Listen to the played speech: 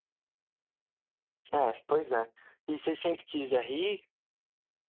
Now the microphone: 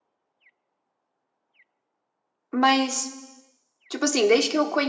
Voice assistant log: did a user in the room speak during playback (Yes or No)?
Yes